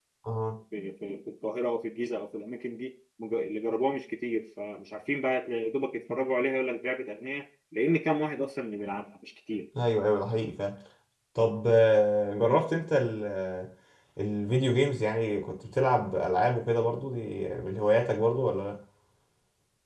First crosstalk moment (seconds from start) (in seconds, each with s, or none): none